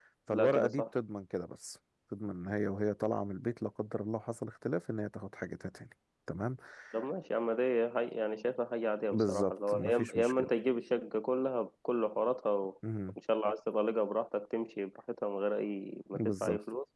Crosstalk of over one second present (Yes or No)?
Yes